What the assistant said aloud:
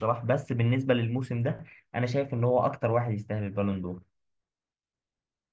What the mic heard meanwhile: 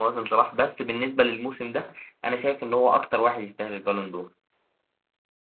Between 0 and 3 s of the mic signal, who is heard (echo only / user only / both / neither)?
echo only